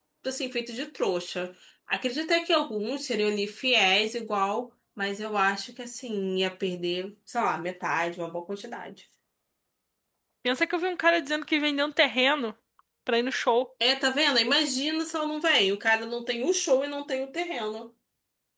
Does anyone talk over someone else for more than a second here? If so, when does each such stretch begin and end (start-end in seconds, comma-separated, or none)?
none